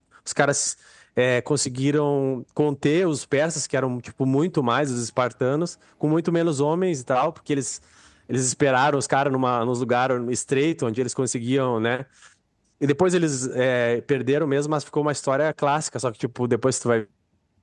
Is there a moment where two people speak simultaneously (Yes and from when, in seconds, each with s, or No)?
No